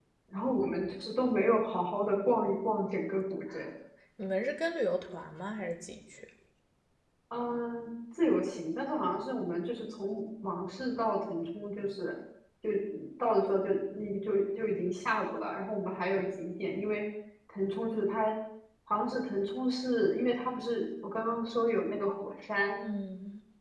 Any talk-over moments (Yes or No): No